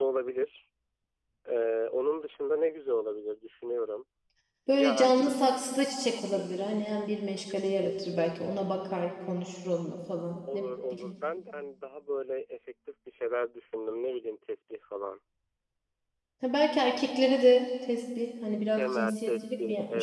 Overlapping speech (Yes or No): Yes